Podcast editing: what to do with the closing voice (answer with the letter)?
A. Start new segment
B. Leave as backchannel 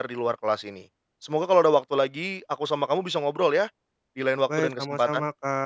A